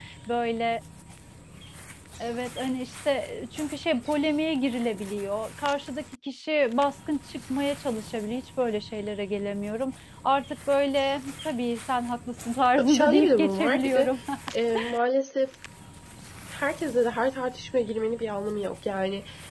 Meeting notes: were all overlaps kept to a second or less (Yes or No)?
No